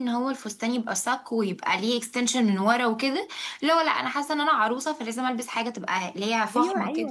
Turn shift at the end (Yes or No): Yes